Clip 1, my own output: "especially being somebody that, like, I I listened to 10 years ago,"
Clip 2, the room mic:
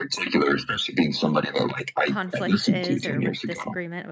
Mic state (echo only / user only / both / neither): both